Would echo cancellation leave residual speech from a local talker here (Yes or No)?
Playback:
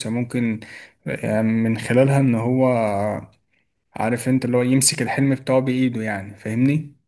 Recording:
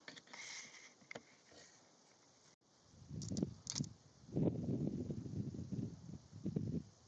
No